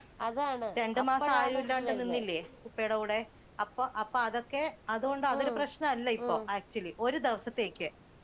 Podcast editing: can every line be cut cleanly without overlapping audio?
No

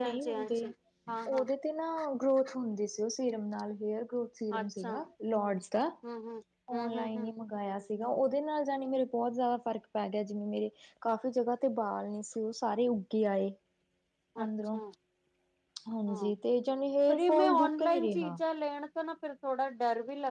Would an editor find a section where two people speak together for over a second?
Yes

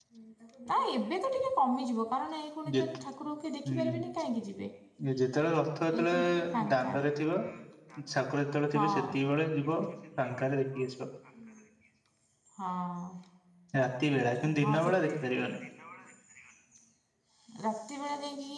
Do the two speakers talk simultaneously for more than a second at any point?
Yes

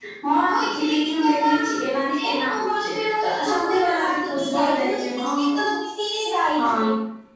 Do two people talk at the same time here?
Yes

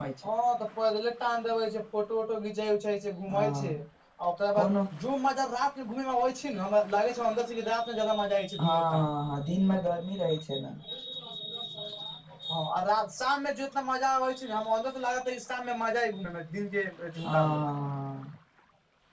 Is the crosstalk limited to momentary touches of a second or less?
Yes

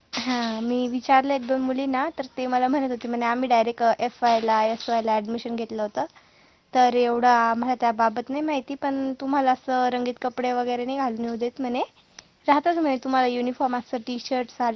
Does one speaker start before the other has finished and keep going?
No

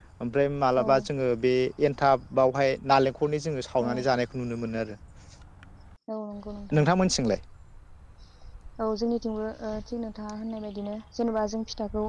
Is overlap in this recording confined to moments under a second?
Yes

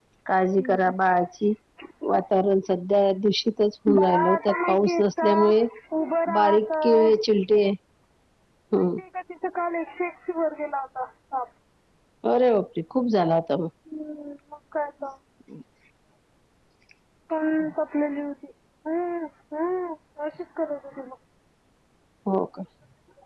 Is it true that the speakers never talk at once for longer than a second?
No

